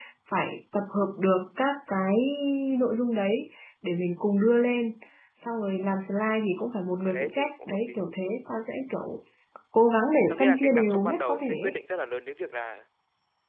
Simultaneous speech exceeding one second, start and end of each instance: 6.6-8.0, 10.3-11.8

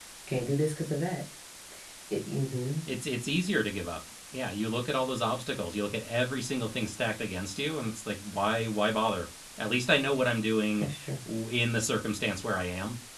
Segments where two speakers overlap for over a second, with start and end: none

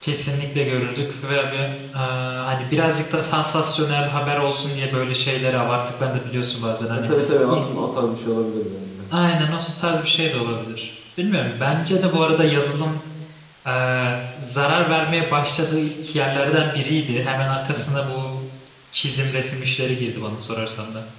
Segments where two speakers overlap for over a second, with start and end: none

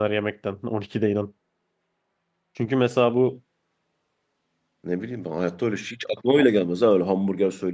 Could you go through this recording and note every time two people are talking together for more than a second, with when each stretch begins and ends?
none

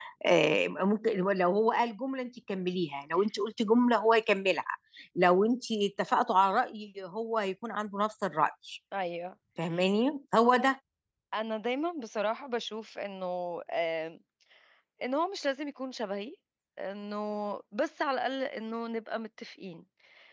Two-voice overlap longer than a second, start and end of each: none

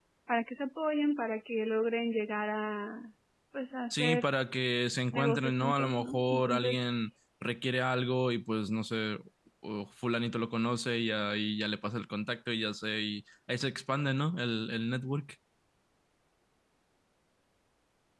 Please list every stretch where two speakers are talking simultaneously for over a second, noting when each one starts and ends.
5.1-6.8

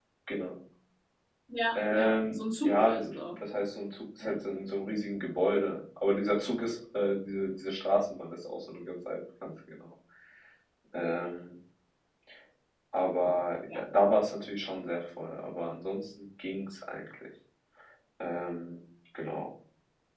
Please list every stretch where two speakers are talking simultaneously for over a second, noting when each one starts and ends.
1.8-3.1

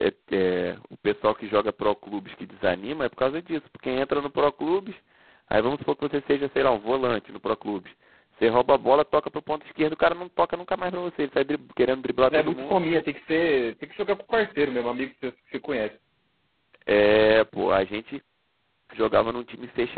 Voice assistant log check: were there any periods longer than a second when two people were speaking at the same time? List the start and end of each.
none

